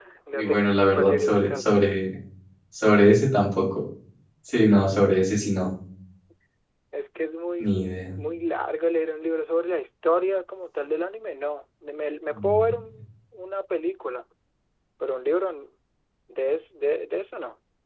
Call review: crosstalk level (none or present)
present